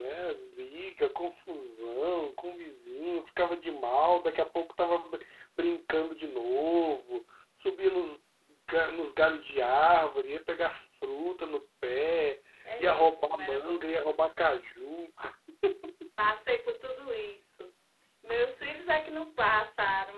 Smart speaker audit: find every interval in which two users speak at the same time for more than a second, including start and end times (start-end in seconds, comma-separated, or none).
12.8-14.2